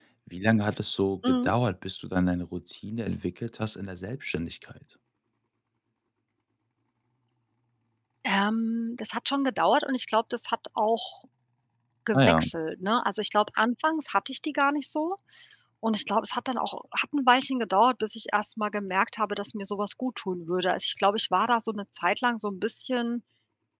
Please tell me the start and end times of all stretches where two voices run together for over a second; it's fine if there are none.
none

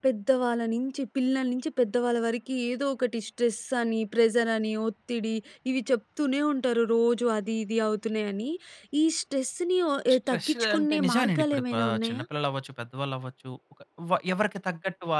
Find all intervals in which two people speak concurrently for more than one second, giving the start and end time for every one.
10.3-12.2

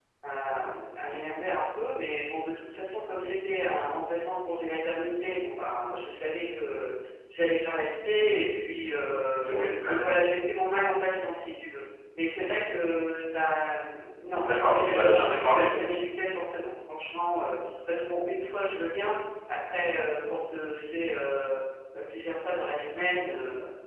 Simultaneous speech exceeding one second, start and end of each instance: 14.4-15.7

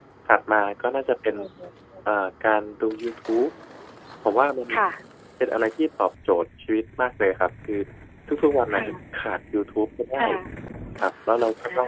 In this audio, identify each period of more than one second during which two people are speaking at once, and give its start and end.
none

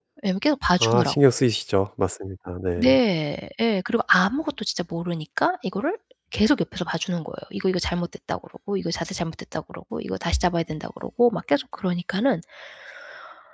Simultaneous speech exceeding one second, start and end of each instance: none

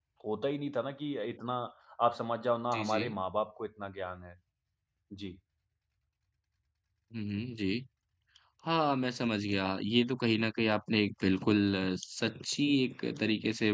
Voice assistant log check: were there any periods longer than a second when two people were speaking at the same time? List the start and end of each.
none

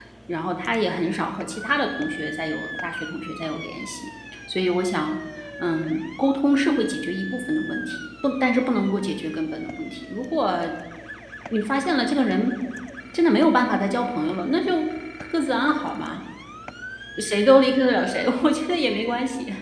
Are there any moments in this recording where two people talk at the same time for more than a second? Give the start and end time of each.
none

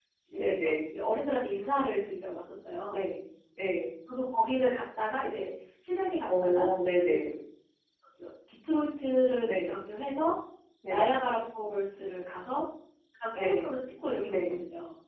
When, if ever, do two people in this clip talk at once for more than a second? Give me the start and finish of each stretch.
none

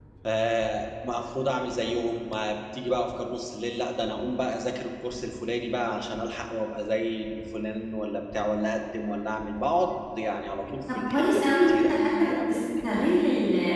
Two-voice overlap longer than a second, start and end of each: 10.9-12.6

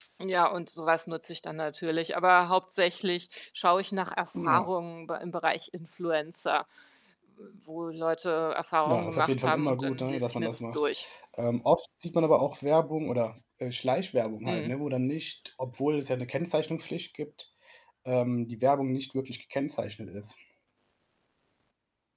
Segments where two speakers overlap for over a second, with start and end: 8.8-10.8

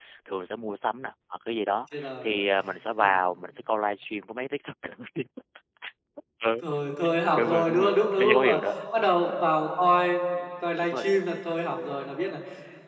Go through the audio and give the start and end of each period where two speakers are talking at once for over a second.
7.3-8.6

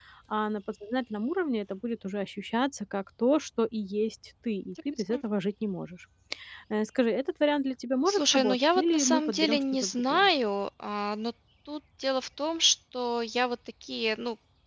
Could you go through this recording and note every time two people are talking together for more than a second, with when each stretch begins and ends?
8.1-10.3

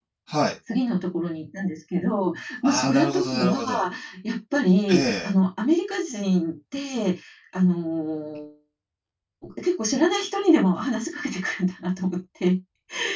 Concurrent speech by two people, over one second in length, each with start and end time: 2.6-3.8

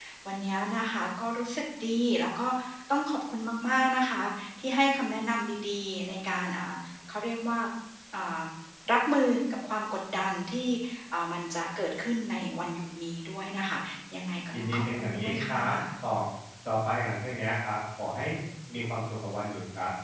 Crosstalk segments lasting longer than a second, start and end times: 14.5-15.8

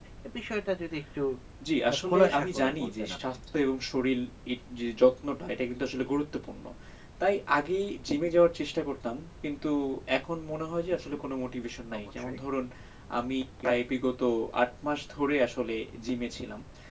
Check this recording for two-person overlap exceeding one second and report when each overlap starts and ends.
1.9-3.4

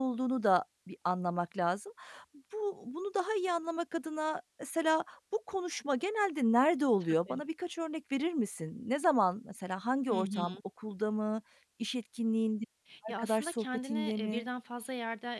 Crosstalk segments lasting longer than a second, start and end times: 13.1-14.5

